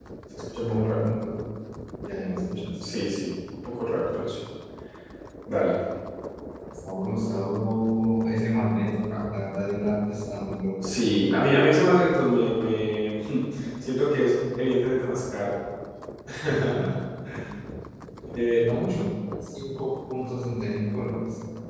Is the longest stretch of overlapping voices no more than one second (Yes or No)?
Yes